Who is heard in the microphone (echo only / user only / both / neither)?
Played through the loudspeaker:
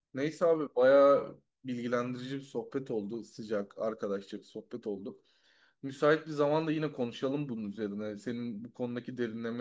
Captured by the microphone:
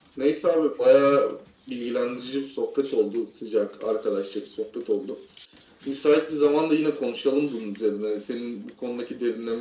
echo only